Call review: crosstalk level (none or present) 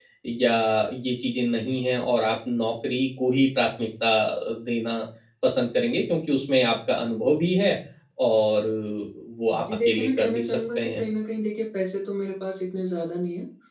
present